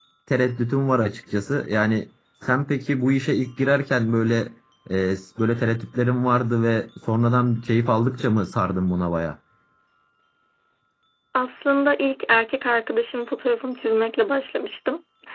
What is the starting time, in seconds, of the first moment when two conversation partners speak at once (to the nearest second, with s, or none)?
none